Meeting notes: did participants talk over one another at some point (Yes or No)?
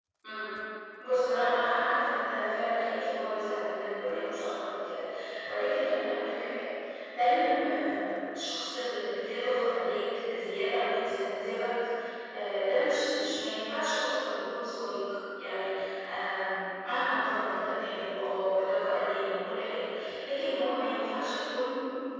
No